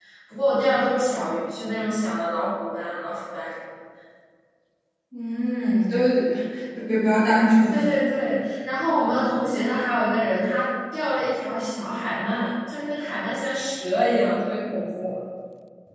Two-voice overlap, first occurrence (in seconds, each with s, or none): none